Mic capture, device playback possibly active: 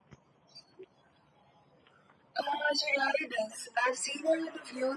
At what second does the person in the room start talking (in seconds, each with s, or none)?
none